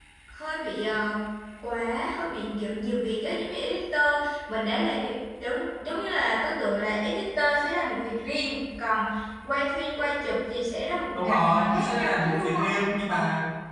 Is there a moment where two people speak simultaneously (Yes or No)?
Yes